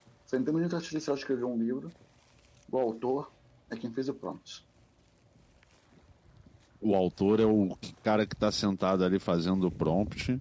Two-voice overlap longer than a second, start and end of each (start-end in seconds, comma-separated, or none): none